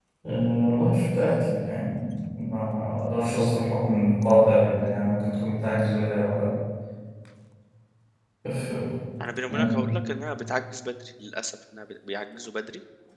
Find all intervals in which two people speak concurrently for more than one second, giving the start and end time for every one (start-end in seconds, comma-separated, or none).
none